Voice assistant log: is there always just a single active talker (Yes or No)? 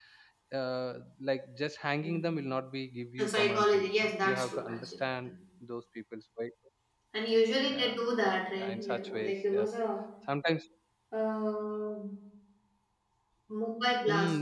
No